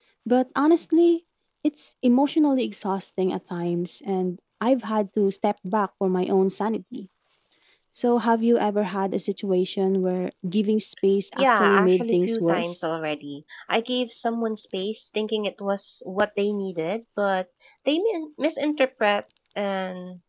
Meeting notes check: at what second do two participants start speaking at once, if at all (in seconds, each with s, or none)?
11.4 s